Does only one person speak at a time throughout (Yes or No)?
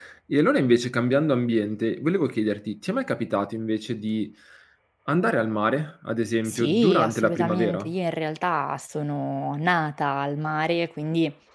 No